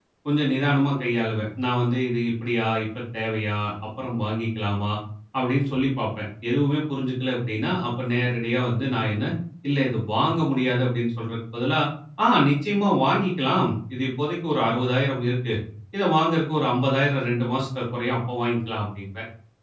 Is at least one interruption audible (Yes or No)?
No